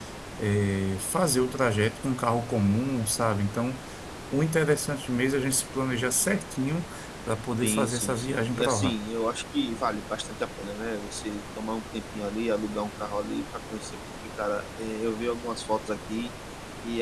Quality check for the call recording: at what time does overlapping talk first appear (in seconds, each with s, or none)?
7.6 s